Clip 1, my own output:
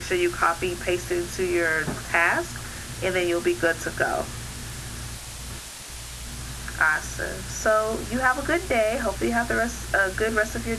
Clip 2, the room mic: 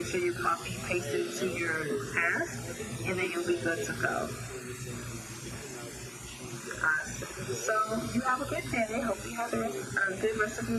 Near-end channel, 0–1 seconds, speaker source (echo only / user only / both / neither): both